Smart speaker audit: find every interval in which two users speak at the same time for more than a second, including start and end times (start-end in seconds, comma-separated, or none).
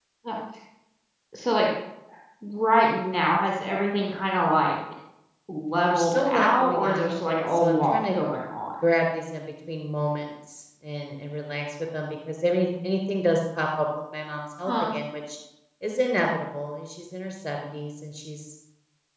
5.9-8.2